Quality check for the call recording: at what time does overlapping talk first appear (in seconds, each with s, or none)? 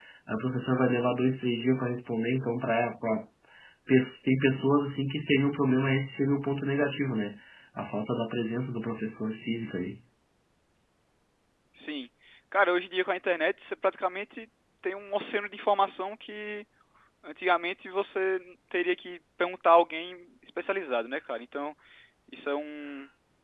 none